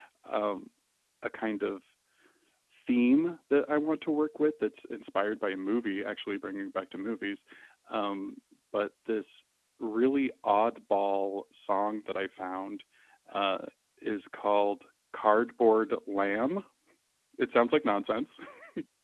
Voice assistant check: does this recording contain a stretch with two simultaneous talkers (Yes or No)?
No